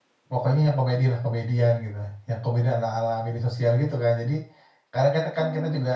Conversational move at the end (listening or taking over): listening